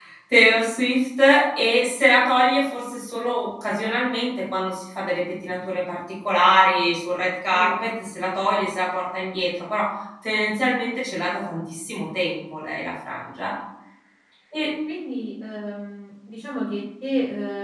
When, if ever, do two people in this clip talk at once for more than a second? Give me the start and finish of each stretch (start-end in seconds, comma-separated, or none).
none